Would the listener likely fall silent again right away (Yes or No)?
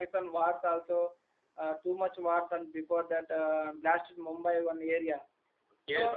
No